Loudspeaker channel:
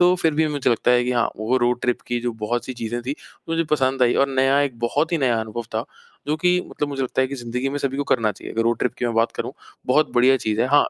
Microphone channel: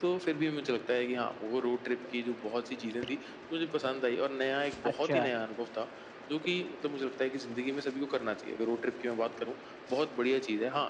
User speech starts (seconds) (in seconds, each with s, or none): 4.8 s